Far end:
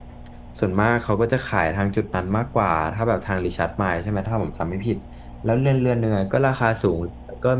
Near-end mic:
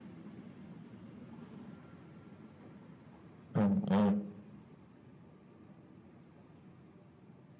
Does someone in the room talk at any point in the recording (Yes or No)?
Yes